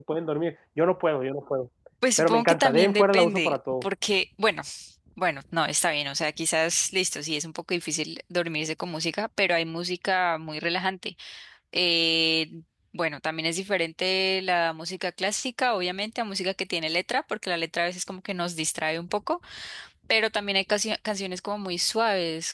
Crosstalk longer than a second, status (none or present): present